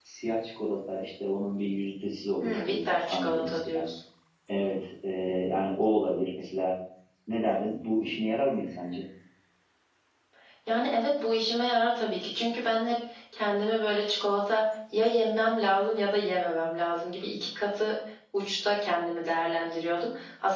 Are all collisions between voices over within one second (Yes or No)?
No